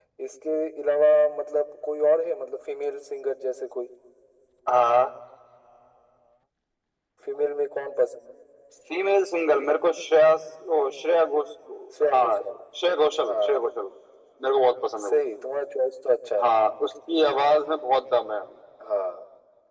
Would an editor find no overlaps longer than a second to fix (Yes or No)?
Yes